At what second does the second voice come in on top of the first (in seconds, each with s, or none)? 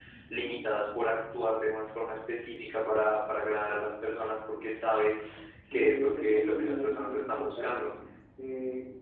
5.7 s